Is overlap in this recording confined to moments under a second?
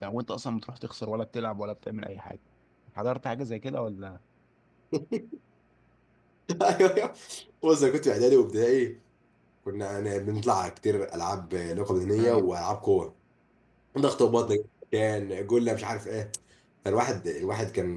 Yes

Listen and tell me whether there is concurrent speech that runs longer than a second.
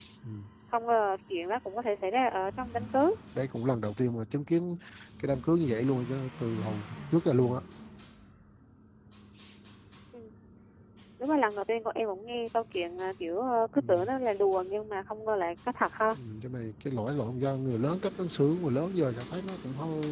No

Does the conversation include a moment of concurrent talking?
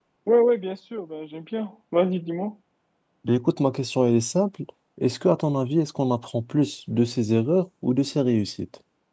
No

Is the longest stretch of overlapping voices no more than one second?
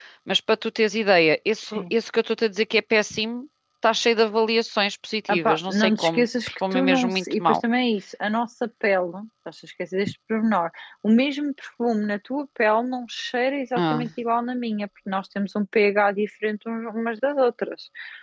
No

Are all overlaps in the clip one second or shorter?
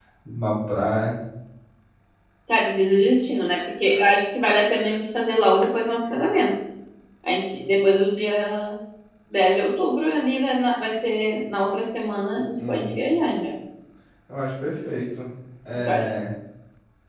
Yes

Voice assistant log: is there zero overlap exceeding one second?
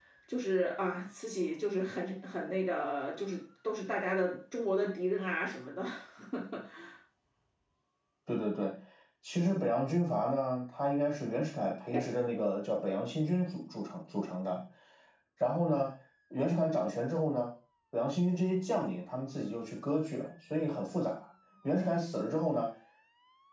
Yes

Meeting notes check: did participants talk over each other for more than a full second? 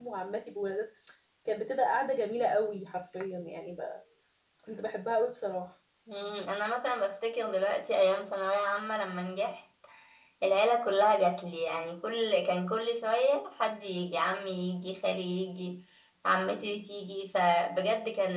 No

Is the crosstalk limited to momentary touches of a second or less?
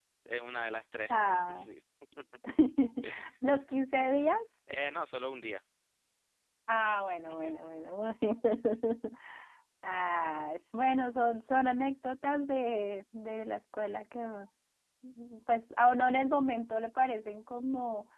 Yes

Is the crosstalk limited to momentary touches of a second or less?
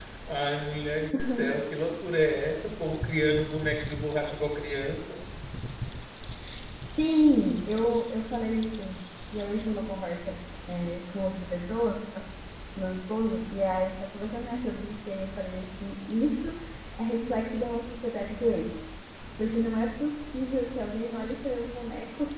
Yes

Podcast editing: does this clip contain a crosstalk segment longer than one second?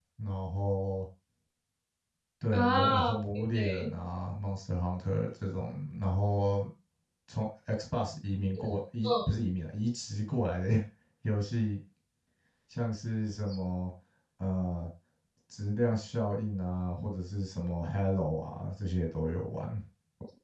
Yes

